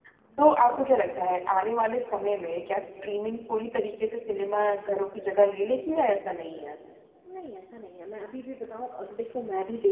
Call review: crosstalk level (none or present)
none